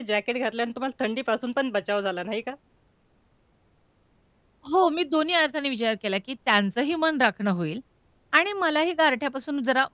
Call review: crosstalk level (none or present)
none